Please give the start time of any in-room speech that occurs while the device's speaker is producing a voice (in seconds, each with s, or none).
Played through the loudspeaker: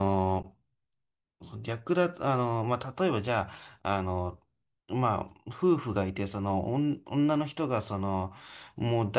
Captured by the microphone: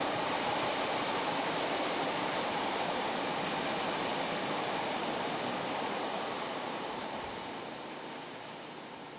none